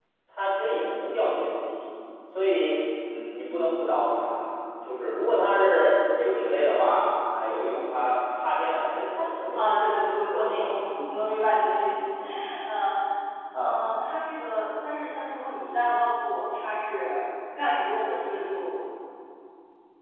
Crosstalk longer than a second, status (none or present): none